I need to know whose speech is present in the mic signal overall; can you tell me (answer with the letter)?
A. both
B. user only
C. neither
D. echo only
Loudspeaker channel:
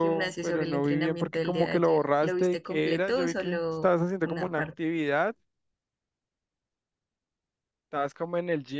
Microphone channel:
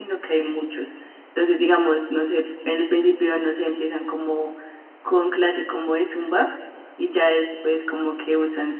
B